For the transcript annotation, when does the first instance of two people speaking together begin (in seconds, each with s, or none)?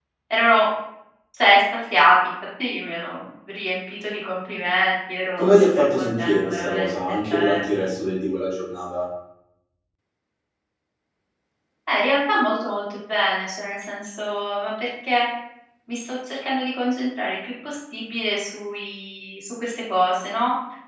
5.4 s